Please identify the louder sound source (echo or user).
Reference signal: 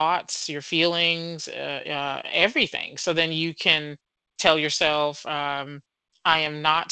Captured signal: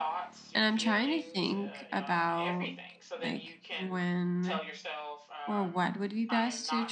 user